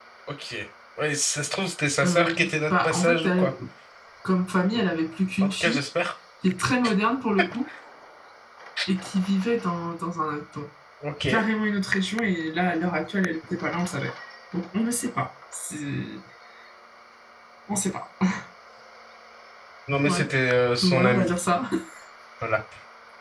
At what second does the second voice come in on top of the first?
2.0 s

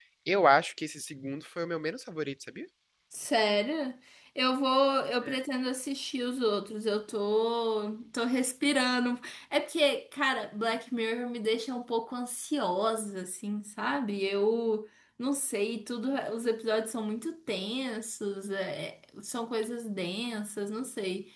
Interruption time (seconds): none

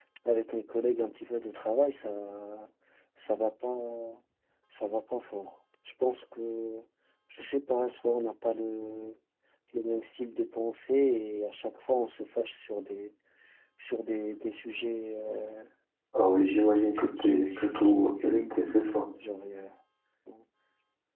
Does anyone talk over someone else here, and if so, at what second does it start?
16.9 s

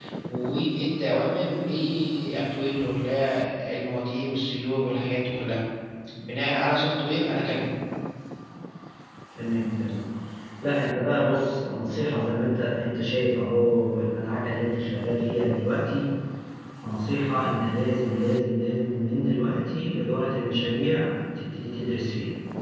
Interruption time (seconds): none

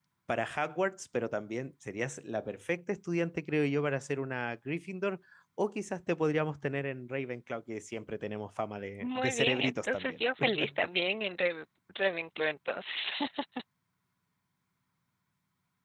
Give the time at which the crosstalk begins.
9.0 s

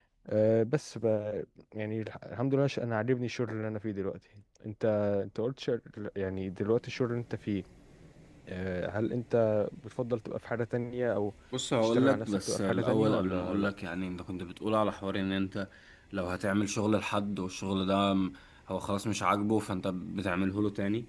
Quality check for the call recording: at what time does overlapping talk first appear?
11.8 s

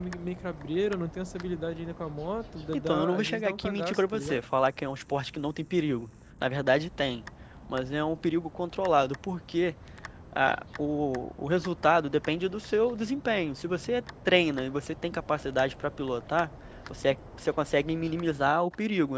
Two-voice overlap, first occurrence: 2.7 s

